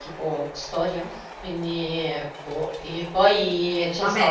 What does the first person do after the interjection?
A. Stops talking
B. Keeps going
A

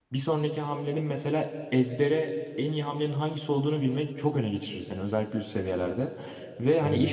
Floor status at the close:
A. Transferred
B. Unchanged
B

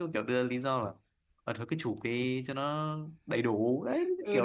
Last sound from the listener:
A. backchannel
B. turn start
B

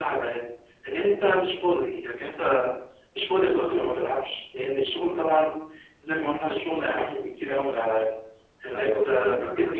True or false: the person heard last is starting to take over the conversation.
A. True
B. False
A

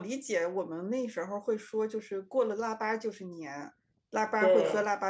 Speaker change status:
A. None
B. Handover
A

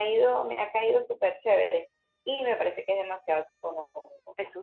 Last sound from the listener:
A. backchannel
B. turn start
A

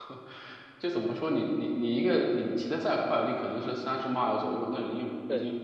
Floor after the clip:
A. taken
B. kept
B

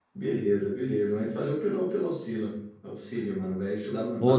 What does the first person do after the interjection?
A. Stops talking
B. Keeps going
A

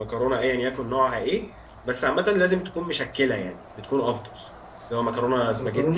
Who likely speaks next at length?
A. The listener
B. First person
A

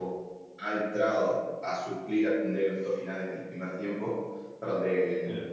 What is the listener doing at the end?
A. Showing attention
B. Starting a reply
A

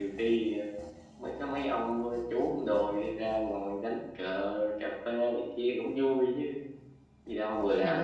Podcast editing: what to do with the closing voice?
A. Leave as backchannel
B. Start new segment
B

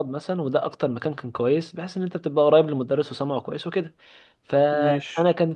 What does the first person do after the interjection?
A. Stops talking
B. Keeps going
B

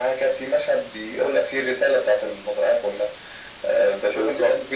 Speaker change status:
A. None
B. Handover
B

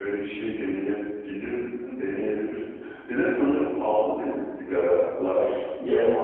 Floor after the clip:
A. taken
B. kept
A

